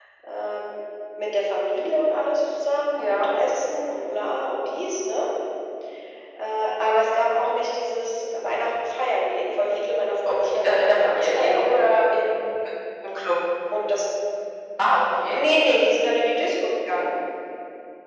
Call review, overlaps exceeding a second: present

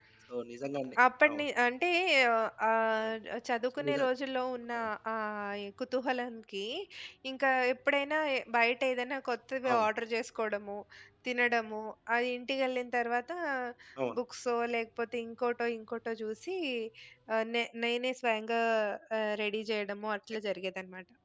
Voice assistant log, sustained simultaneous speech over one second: none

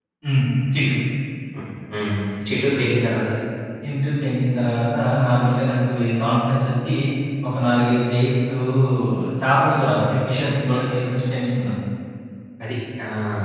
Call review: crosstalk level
none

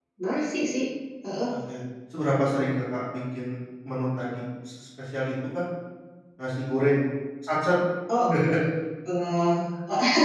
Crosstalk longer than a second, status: none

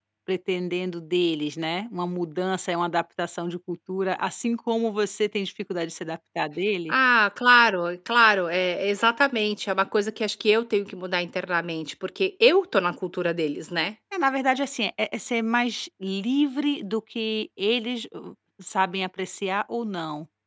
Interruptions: none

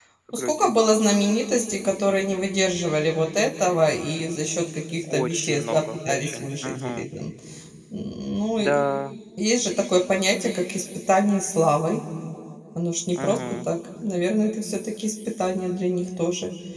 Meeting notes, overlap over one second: present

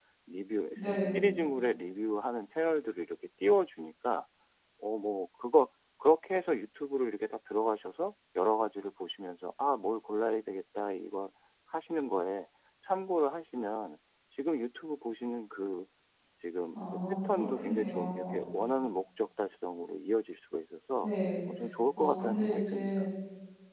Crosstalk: present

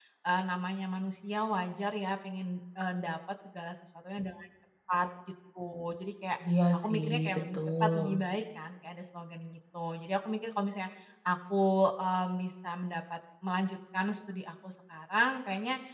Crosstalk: present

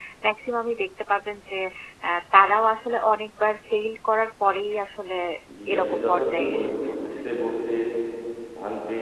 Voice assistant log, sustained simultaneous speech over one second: present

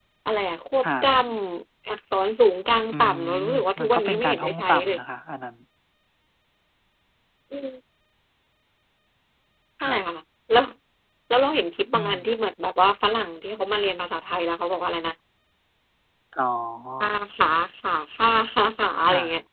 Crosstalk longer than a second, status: present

